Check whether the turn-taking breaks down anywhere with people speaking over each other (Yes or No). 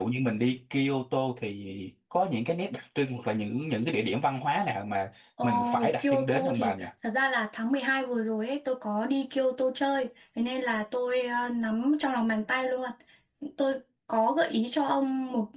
Yes